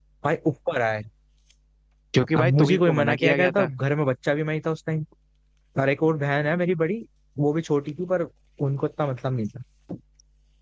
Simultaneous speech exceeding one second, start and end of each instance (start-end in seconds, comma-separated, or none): 2.4-3.7